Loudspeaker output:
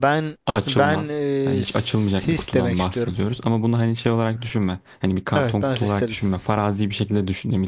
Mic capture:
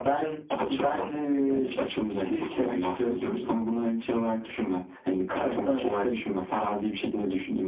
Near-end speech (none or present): none